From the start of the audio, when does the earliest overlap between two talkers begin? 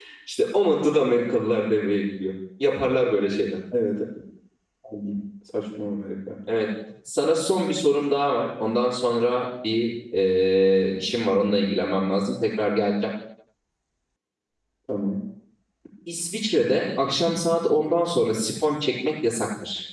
none

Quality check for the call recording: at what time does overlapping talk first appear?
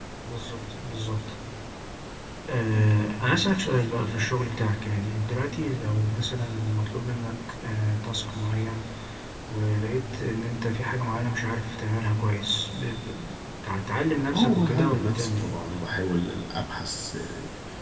14.3 s

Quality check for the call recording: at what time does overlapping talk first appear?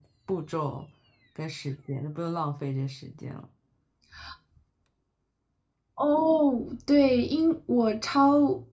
none

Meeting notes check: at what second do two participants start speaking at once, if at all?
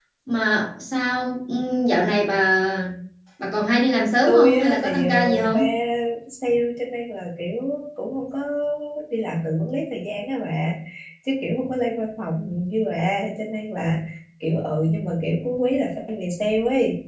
4.3 s

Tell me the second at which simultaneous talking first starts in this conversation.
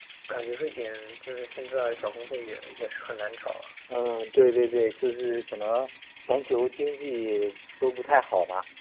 none

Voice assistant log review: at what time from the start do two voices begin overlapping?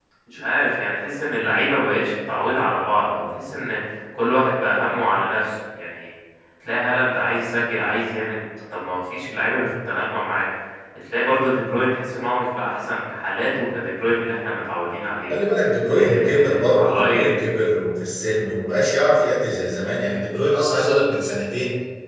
15.9 s

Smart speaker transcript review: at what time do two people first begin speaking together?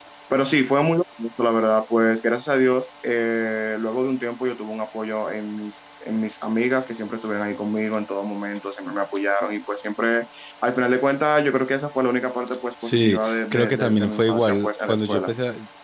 12.8 s

